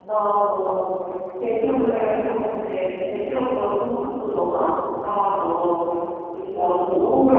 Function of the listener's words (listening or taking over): listening